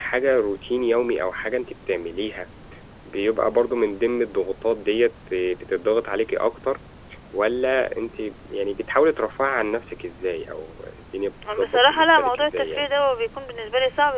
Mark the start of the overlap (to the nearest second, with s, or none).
11 s